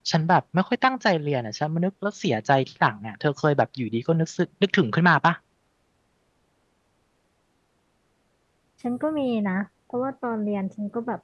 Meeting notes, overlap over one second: none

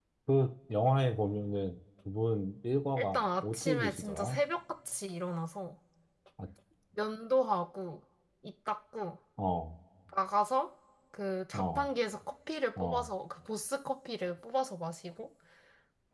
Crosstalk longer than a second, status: present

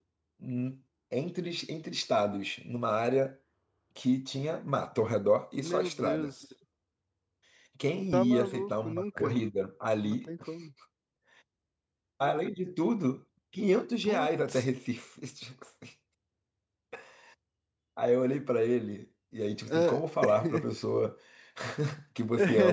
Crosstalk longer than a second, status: present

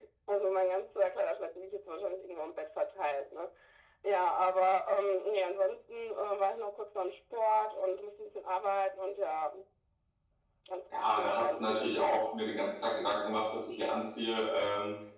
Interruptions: present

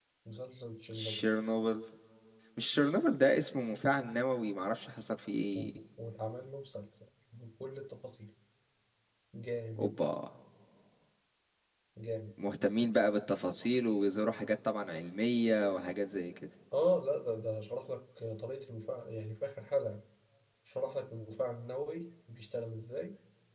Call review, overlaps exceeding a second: none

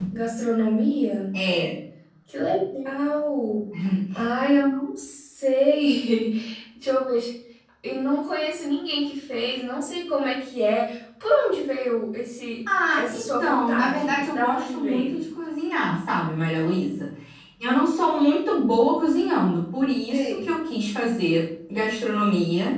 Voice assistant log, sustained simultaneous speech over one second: present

